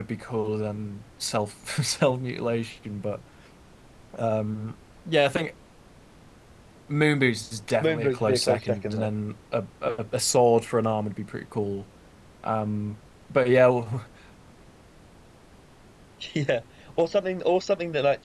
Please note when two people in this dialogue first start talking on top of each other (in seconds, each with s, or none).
7.8 s